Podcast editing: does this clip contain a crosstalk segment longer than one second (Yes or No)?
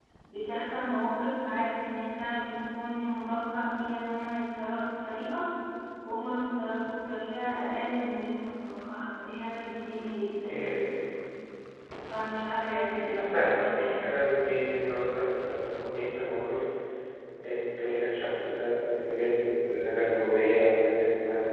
Yes